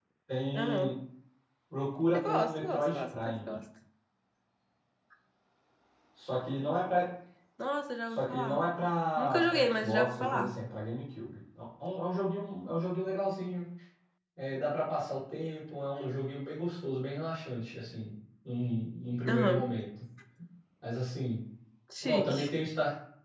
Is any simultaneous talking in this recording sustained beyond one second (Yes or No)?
Yes